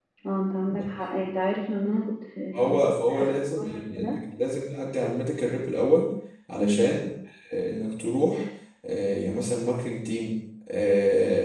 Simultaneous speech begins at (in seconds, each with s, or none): 2.5 s